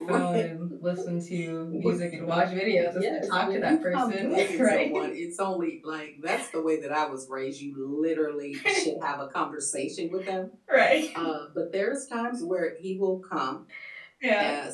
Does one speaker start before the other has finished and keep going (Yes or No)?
Yes